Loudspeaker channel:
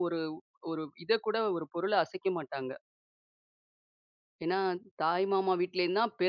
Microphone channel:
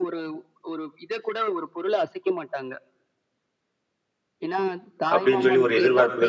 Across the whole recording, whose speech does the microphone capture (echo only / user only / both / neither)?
both